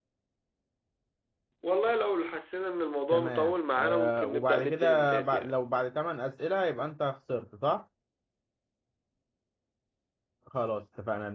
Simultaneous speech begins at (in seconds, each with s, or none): 3.1 s